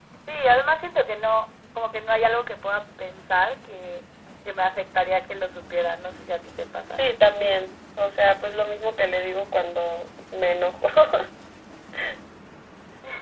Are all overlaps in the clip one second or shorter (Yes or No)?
Yes